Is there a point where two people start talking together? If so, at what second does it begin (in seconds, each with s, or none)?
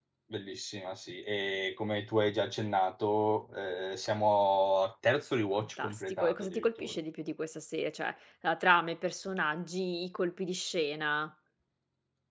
5.5 s